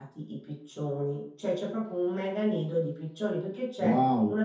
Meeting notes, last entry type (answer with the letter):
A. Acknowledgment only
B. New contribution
A